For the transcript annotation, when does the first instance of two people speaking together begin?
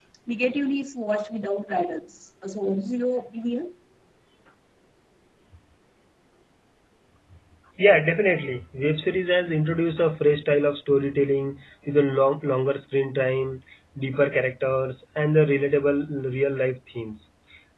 none

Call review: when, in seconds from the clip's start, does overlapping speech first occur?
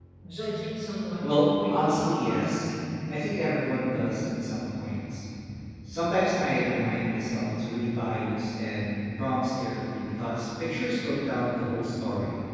1.2 s

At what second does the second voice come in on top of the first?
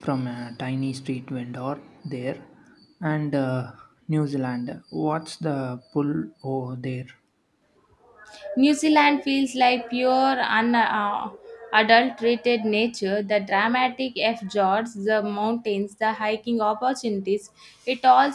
none

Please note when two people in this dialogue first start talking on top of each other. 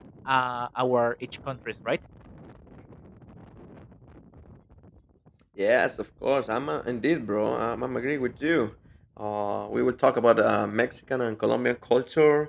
none

